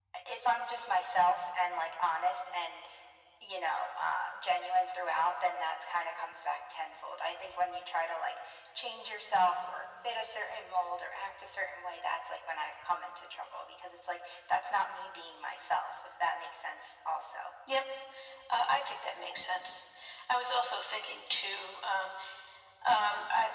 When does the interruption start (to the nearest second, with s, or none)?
none